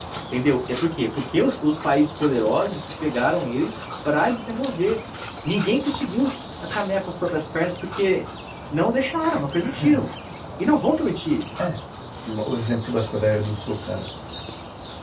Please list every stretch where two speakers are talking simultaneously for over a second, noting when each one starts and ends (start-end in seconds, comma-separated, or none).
none